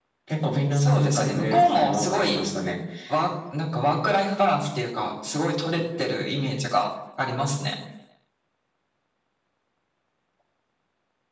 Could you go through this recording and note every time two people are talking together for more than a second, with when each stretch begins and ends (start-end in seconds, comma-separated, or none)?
0.7-2.4